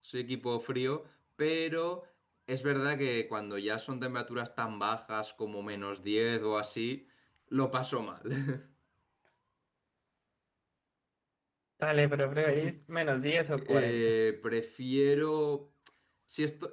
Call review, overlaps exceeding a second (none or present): none